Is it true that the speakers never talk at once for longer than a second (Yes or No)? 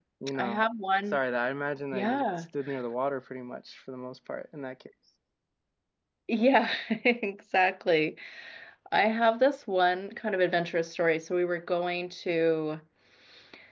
Yes